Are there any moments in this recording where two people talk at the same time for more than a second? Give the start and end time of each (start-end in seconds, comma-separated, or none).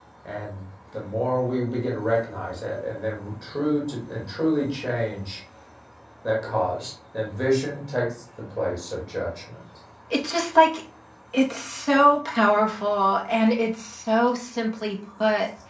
none